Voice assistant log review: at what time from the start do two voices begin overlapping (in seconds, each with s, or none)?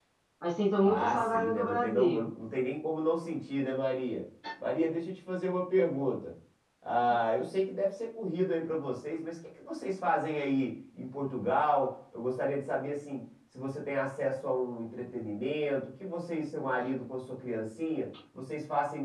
0.8 s